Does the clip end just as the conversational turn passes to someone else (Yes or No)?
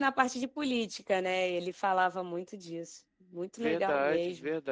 Yes